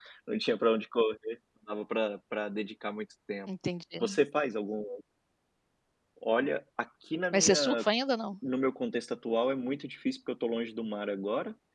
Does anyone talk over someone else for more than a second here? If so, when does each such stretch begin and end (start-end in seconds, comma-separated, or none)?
none